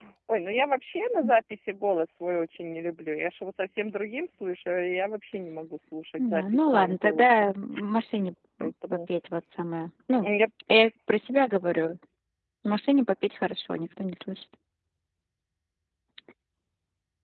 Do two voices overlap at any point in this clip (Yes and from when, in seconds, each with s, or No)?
Yes, from 6.2 s